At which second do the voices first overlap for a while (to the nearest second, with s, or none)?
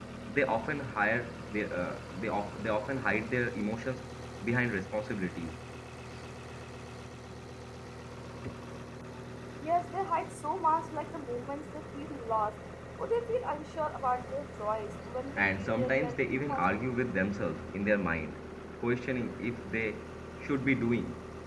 15 s